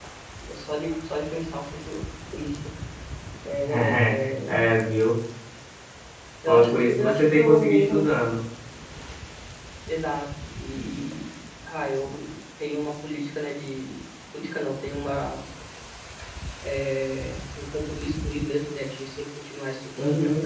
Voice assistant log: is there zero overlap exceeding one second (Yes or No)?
No